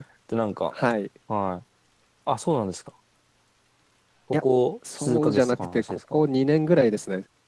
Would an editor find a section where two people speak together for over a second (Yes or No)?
Yes